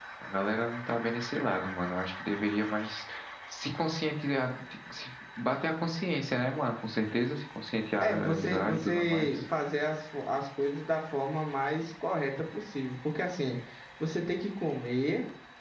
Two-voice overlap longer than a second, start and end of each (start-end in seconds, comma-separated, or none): 8.0-9.4